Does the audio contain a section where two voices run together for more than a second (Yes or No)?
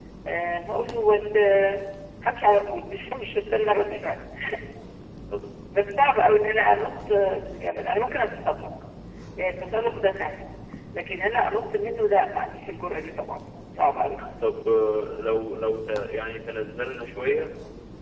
No